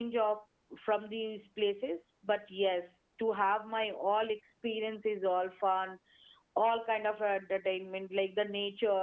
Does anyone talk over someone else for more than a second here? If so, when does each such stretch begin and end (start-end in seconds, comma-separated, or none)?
none